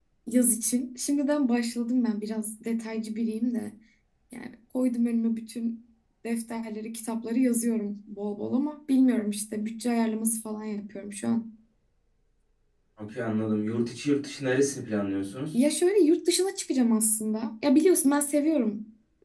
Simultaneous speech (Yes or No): No